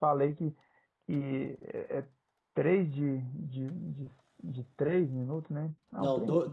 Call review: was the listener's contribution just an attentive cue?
No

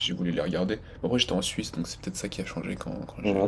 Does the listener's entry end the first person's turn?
Yes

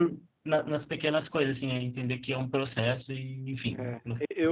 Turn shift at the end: Yes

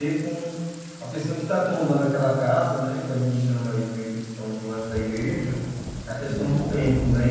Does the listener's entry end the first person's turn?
No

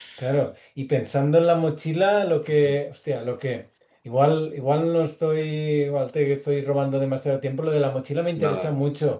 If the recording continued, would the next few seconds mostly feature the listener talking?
No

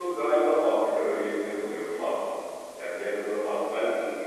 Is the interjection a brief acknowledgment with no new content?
No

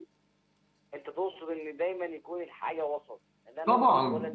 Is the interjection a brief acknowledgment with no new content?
No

